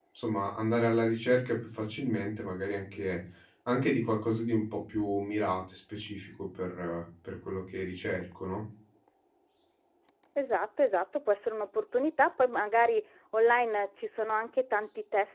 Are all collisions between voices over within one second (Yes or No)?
Yes